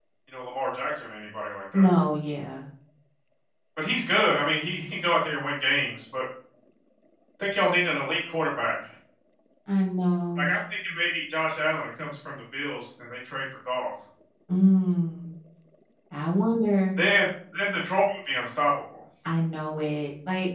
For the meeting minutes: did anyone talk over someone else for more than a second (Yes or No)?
No